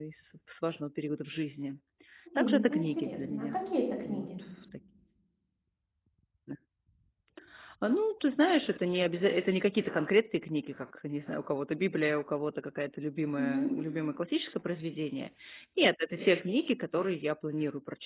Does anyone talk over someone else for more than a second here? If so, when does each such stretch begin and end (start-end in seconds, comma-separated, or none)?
2.4-3.6